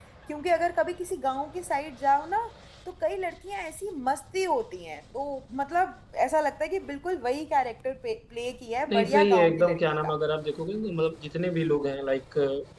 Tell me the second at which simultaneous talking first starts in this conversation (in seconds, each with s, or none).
8.9 s